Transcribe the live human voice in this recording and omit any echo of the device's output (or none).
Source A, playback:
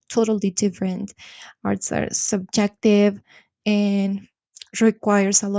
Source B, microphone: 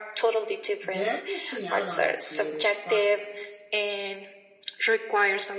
they're missing out on the creative process.